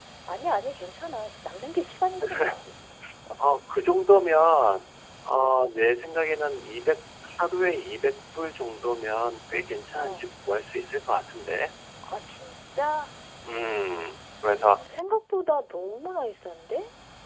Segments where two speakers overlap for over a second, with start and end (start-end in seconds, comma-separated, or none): none